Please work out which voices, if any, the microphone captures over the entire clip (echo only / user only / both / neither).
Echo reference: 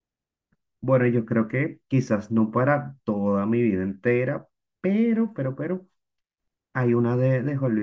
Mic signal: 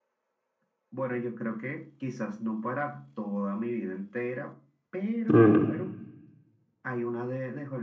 both